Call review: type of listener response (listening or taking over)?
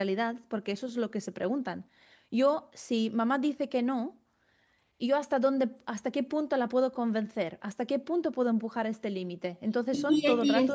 taking over